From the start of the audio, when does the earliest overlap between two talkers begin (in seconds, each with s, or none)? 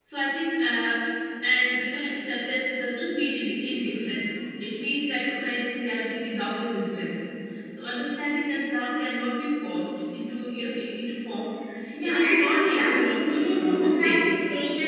11.9 s